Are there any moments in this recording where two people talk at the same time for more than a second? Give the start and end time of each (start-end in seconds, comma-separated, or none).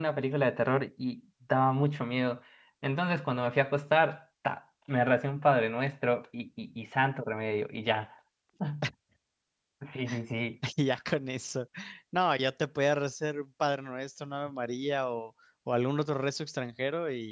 none